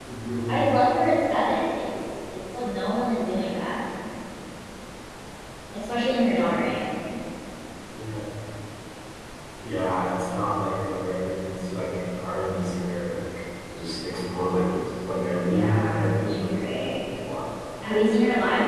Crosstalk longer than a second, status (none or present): present